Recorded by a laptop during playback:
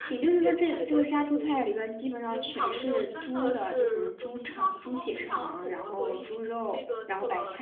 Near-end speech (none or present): present